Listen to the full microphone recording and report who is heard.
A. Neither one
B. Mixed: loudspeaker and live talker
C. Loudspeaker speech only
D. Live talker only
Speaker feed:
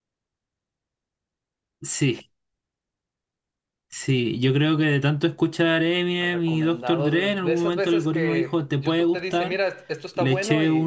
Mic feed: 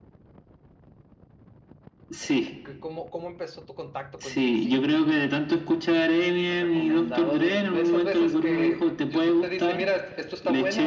B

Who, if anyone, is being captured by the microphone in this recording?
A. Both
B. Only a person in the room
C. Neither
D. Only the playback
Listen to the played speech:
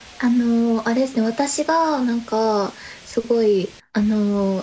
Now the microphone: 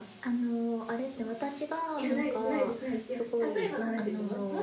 A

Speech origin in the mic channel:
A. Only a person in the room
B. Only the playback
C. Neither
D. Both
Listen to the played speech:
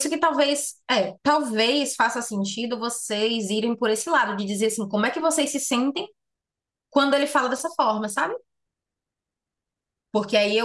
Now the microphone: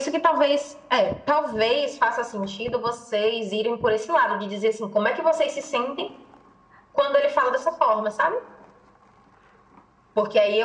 B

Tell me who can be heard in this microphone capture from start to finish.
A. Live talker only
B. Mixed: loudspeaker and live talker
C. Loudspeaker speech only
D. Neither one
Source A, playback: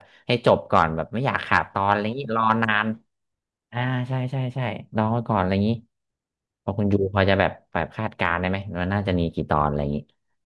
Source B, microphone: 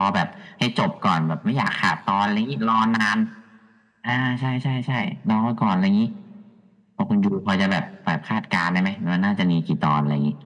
C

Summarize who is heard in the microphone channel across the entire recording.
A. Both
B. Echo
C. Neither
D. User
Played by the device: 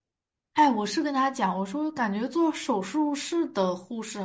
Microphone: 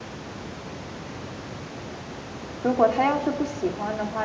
D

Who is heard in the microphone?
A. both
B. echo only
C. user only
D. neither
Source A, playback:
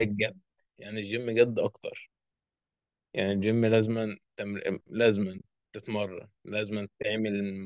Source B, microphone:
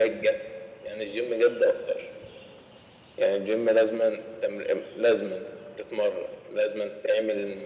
B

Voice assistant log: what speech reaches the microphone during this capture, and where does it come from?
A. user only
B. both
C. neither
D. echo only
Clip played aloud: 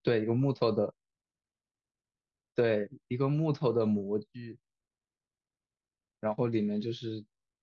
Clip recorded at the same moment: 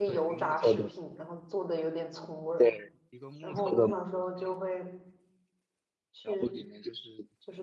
B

